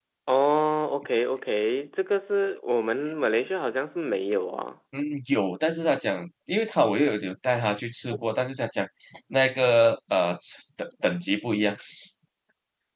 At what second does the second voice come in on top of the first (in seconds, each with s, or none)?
none